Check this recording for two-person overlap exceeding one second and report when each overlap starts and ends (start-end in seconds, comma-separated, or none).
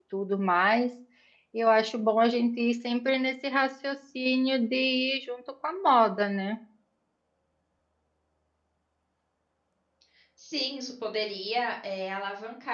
none